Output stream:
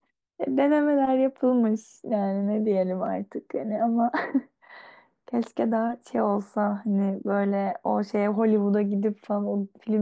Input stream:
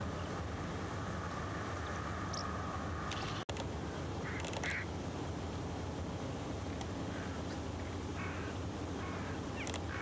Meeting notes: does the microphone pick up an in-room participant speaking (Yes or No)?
No